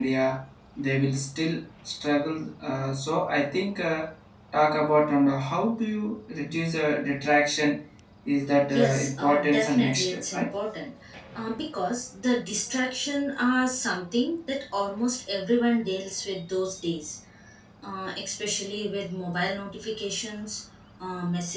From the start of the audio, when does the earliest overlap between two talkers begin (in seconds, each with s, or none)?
8.7 s